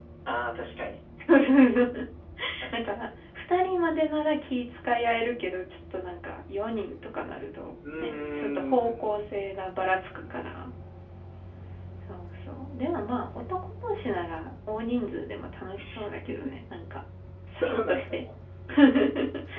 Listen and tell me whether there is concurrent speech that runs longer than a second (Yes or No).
Yes